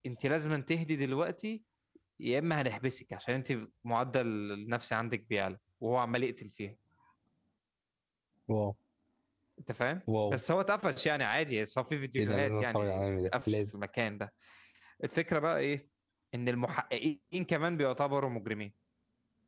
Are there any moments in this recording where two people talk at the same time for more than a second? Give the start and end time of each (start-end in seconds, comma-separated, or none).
12.2-13.6